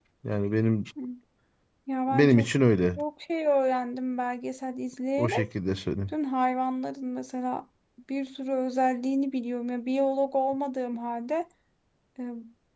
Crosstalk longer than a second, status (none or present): none